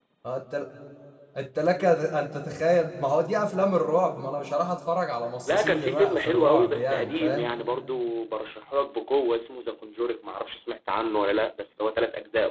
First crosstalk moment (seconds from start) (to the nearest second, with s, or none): 5 s